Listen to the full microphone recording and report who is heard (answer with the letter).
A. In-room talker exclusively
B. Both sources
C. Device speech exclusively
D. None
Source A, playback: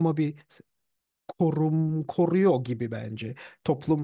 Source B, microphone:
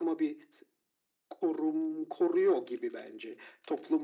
C